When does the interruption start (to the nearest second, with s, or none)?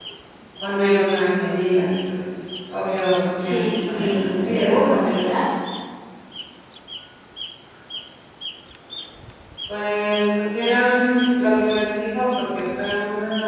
3 s